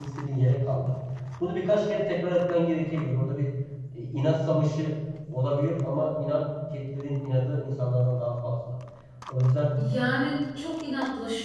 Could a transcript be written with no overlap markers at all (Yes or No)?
Yes